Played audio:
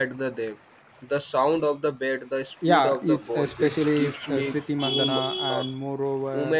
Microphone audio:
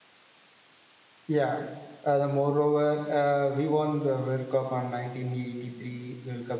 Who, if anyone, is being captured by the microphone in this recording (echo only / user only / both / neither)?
user only